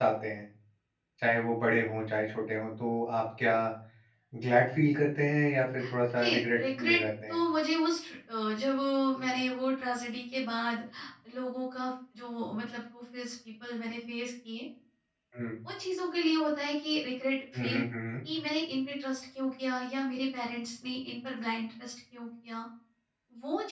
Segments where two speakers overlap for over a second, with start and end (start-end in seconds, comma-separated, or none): 5.9-7.4